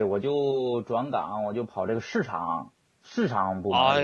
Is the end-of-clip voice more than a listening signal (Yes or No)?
Yes